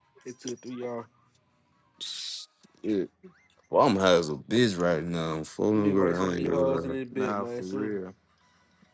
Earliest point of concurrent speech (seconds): 5.8 s

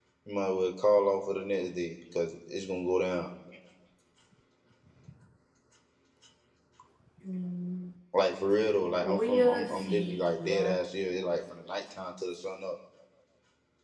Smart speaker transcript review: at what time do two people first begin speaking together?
9.0 s

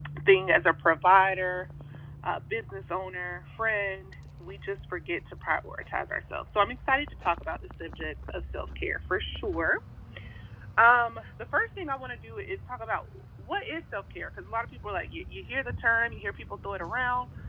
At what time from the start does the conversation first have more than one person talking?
none

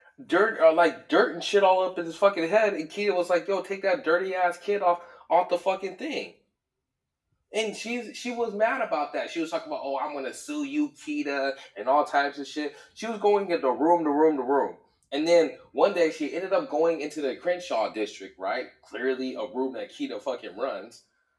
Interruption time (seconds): none

